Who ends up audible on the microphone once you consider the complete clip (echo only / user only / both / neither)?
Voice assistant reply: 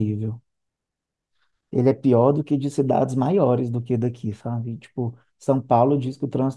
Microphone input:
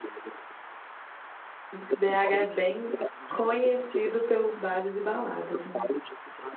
both